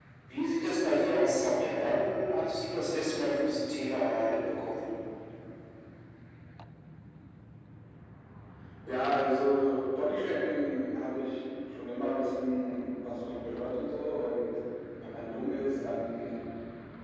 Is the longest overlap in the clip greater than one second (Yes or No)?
No